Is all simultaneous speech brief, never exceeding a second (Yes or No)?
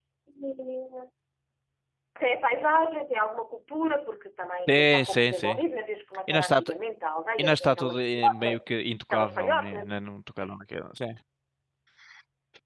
No